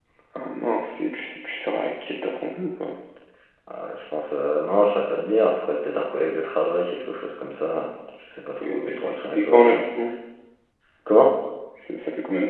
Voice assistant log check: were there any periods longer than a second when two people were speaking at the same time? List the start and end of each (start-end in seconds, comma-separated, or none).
8.7-9.9